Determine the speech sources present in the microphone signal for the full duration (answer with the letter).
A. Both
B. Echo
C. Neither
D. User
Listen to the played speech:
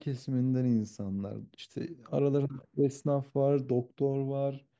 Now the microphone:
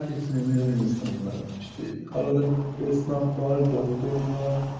B